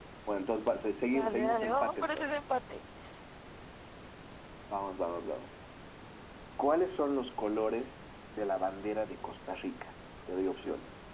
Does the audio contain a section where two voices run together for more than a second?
Yes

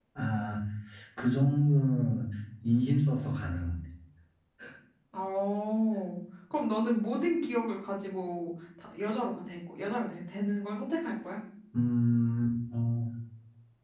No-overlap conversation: Yes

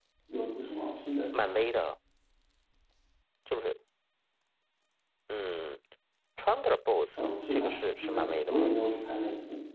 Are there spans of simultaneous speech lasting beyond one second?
Yes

